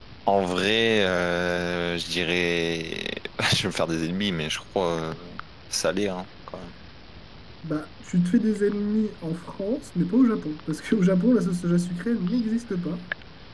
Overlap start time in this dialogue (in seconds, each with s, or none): none